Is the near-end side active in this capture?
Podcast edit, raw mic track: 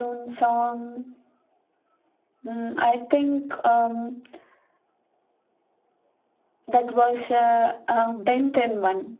No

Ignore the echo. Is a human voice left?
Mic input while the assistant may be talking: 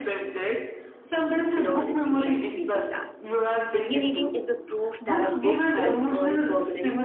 Yes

